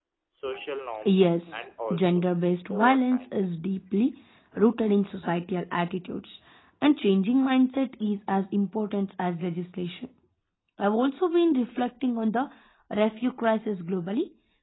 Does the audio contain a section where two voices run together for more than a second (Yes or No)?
Yes